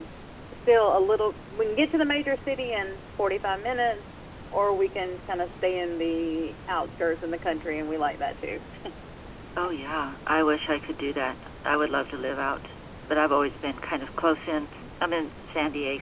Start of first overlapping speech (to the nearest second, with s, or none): none